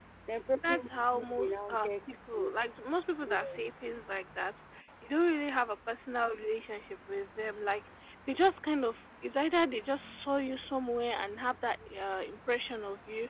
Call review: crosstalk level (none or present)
present